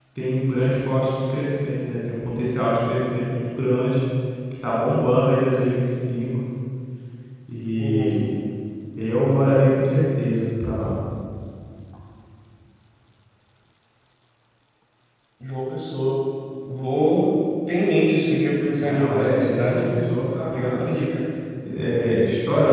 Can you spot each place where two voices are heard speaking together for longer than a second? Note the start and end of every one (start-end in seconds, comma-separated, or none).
18.7-19.9